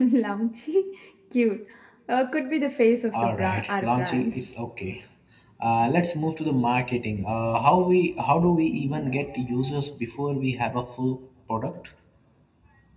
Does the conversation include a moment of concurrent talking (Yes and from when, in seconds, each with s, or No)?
Yes, from 3.1 s